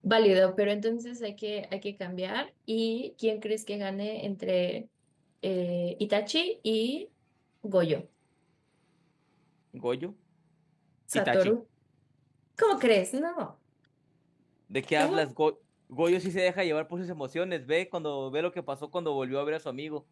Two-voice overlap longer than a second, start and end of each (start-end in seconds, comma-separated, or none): none